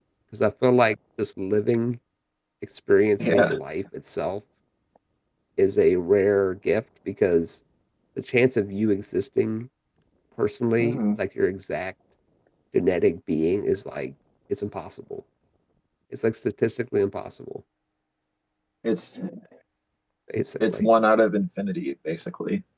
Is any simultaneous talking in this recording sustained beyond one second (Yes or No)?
No